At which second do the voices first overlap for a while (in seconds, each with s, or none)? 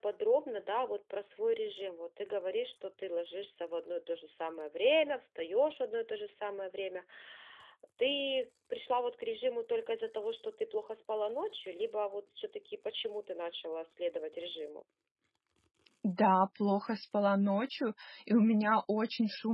none